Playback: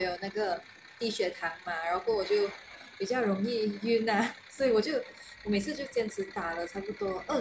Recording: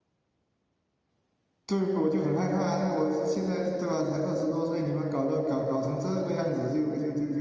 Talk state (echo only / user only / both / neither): user only